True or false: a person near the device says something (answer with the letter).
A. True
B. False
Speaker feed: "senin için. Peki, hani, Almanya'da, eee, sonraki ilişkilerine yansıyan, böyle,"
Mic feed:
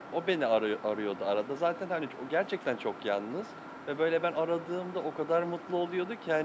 A